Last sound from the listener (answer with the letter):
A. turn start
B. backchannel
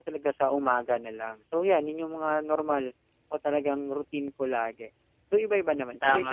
A